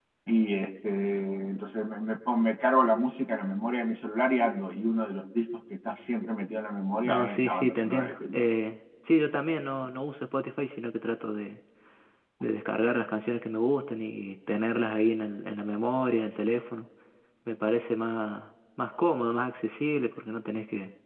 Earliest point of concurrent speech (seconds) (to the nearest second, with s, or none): 7 s